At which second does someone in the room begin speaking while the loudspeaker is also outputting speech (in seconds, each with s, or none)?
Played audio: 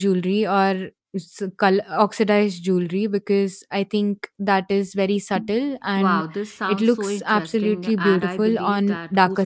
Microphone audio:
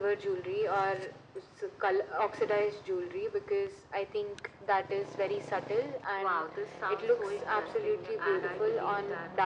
none